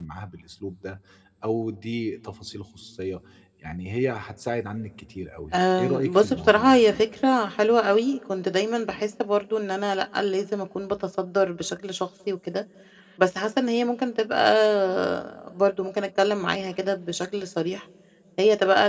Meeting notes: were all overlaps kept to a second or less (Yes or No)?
No